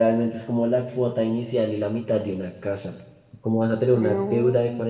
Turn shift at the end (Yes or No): No